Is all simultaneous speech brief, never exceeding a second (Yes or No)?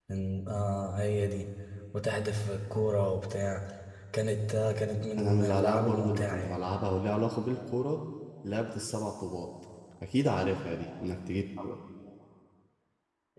No